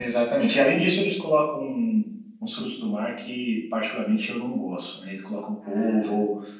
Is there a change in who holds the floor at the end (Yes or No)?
No